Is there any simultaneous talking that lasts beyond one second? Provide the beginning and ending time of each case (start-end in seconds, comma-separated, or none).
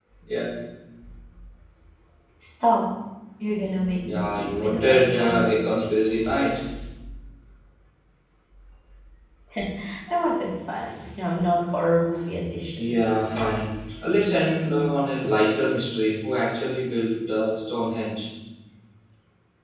4.0-5.6